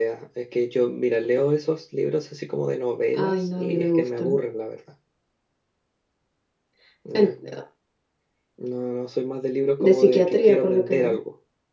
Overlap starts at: 3.1 s

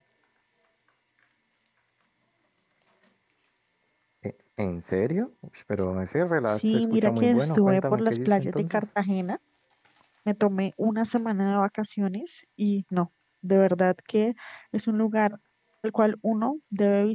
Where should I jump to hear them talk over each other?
6.5 s

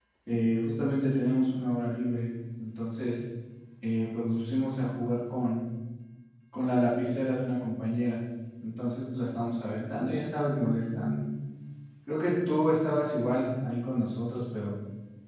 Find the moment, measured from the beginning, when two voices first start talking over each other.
none

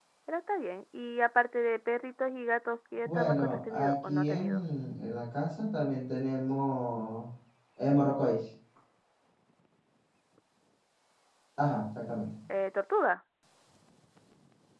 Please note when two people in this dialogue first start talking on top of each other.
3.0 s

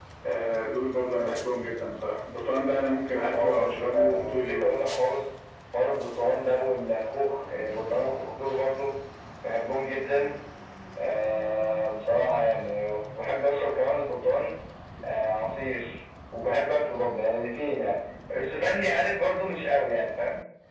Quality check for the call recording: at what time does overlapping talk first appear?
3.1 s

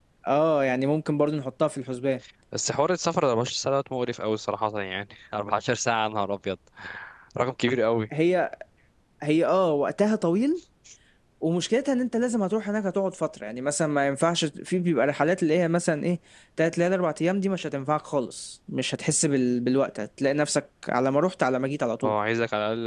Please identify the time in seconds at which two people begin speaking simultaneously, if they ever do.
none

